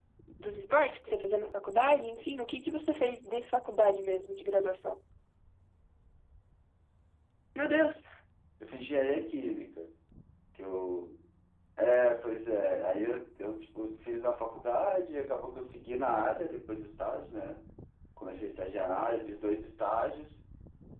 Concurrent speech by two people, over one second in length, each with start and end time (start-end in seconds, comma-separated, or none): none